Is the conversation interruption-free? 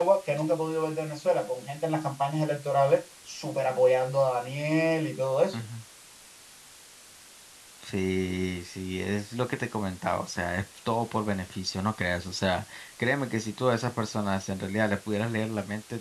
Yes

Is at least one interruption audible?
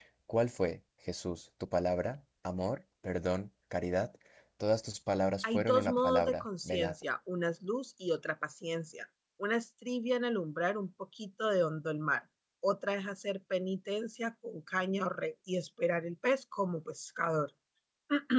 Yes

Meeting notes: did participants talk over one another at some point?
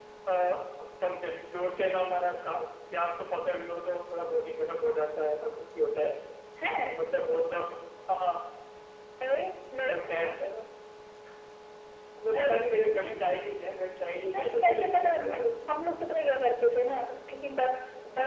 Yes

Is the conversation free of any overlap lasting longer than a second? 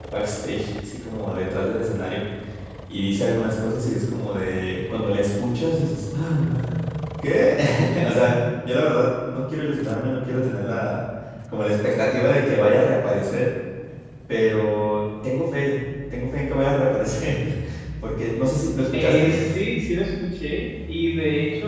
Yes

